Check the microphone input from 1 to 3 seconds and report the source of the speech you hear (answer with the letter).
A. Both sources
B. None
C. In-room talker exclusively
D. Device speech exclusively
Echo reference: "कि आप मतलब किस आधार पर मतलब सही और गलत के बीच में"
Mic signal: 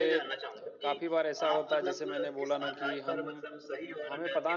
A